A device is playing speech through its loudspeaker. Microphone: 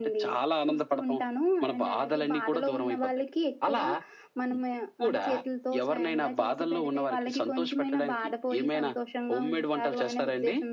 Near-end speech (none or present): none